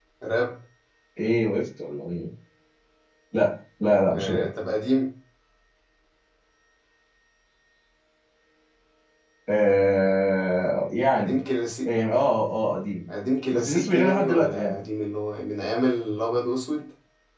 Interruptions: present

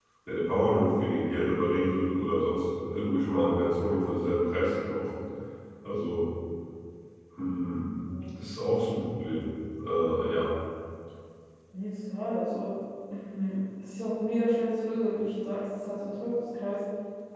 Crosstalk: none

